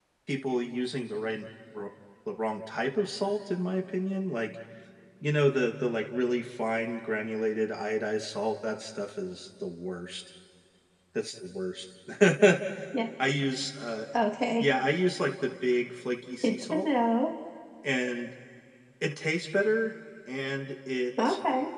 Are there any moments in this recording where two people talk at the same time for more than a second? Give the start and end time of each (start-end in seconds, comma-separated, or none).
none